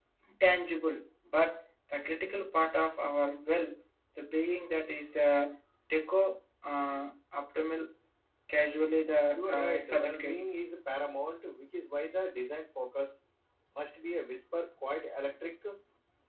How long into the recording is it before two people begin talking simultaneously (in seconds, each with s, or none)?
9.3 s